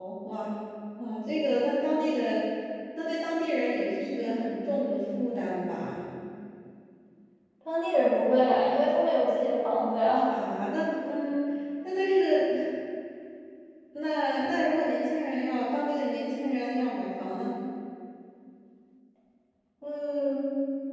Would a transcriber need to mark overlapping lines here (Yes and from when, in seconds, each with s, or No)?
No